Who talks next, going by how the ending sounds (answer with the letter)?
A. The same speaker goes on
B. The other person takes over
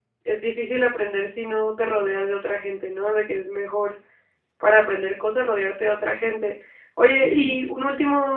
A